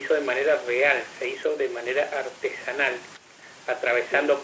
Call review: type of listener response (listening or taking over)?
listening